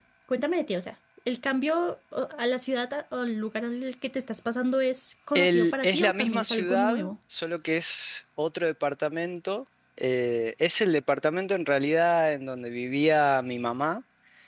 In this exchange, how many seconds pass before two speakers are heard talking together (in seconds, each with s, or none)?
5.3 s